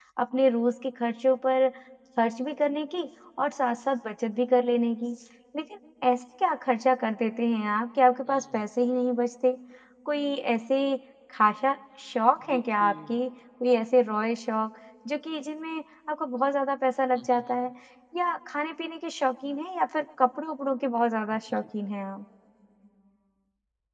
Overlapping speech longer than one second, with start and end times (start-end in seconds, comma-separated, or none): none